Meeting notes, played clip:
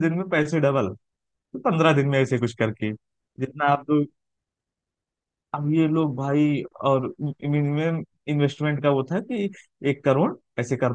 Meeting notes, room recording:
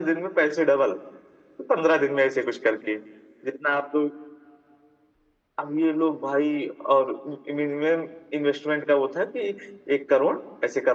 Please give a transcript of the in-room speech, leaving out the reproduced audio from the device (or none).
none